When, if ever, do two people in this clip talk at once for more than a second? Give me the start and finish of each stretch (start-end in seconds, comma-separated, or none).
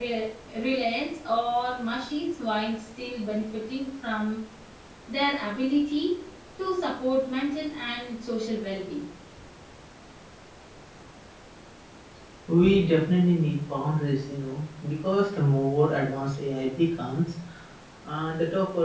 none